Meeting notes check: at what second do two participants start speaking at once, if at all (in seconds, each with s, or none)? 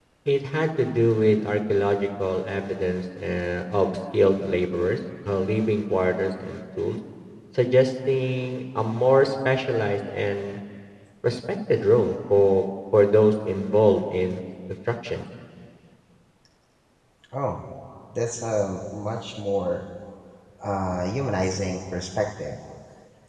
none